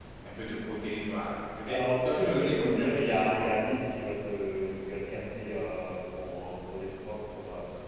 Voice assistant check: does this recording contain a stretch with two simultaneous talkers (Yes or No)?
Yes